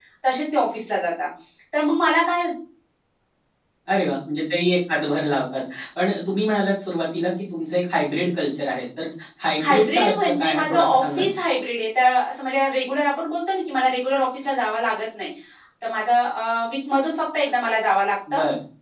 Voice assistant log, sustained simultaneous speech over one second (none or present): present